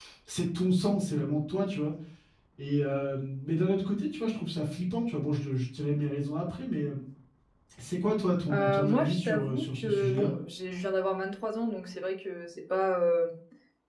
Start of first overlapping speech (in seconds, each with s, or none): 8.5 s